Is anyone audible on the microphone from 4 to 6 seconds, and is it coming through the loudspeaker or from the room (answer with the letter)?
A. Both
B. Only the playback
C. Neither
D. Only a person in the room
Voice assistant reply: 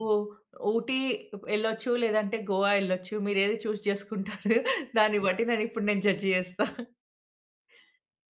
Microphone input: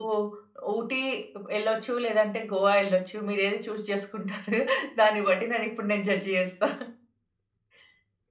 B